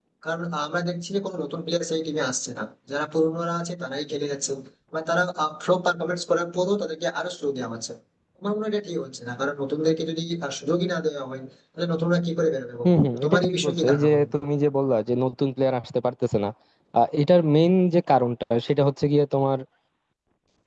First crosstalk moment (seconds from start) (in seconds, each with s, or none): 12.8 s